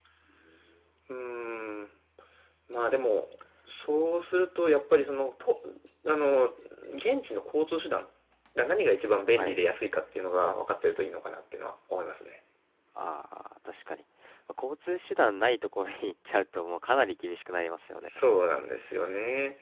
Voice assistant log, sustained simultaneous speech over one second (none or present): none